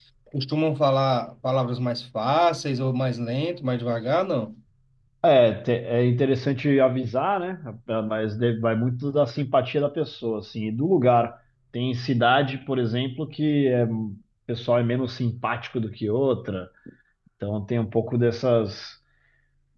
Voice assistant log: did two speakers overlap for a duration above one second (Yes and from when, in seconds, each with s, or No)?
No